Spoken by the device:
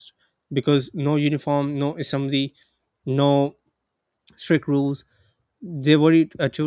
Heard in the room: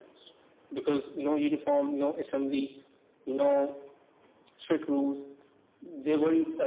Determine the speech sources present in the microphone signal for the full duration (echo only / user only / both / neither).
echo only